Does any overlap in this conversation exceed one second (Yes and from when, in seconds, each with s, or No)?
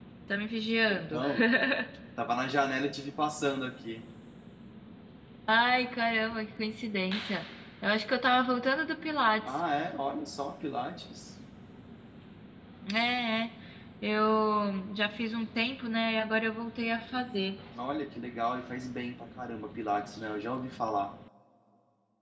No